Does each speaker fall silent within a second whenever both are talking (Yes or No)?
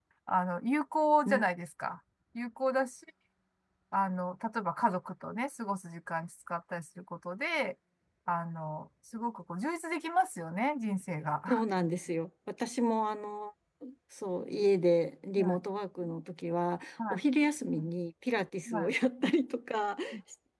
Yes